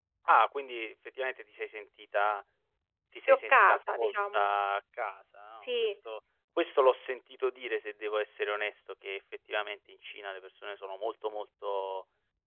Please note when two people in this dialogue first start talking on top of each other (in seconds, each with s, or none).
3.3 s